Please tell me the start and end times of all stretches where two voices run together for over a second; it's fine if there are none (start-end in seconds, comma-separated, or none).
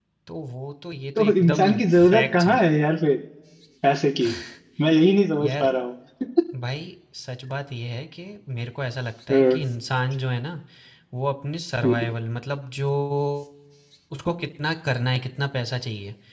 1.2-2.6